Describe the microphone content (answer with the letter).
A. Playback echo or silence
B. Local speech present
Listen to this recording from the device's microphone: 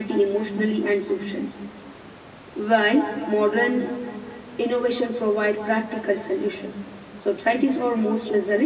A